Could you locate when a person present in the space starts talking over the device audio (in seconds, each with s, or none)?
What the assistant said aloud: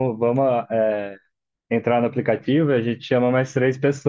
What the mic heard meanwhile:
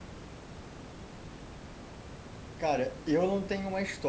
2.6 s